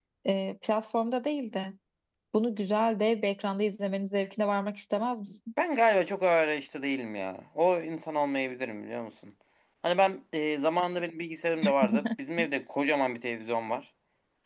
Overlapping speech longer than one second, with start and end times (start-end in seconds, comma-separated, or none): none